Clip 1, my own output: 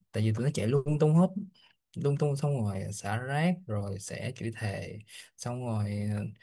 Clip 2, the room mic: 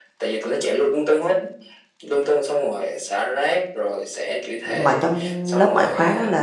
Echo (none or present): present